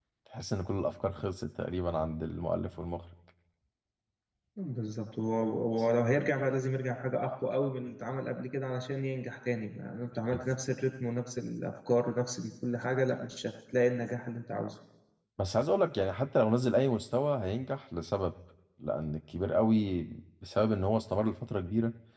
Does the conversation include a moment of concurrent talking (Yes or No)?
No